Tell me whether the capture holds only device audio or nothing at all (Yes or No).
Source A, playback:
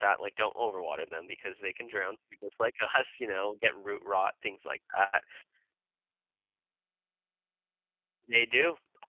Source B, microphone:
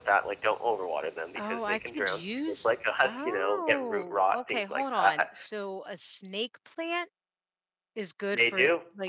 No